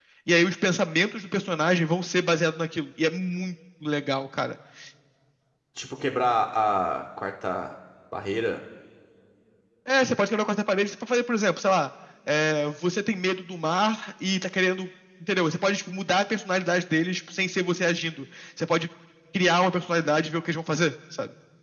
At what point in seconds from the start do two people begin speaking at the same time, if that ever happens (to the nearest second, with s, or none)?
none